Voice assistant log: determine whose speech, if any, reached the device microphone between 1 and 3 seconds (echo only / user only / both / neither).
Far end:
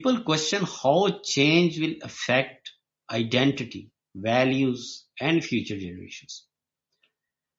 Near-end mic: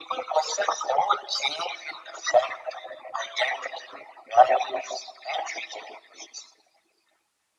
echo only